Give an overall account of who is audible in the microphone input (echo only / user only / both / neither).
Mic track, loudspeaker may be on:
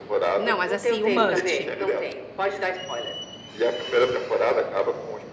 both